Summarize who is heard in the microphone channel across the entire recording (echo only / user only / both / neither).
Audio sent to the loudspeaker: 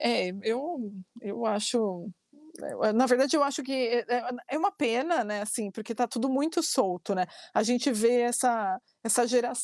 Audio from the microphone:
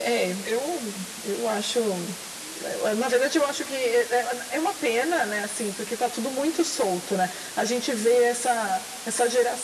echo only